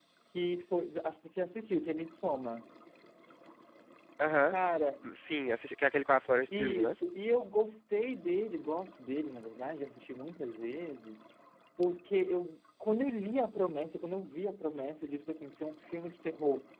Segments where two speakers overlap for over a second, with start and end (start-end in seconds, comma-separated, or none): none